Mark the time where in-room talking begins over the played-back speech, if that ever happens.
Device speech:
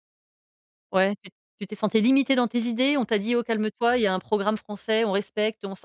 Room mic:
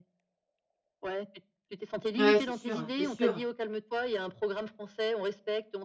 2 s

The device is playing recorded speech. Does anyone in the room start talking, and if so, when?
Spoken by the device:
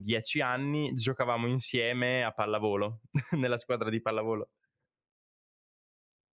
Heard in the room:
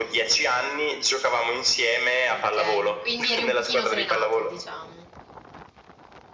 2 s

